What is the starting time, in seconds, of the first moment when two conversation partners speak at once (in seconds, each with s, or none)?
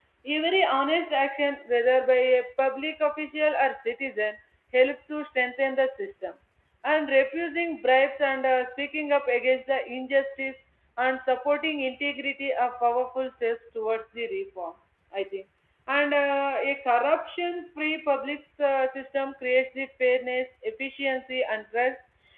none